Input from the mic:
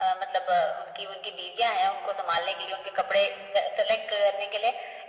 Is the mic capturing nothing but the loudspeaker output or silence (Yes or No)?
Yes